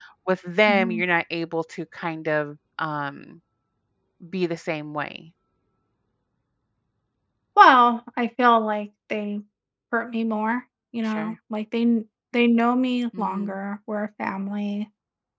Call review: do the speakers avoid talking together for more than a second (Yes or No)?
Yes